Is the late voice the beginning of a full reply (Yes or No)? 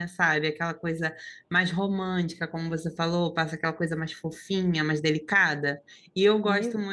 No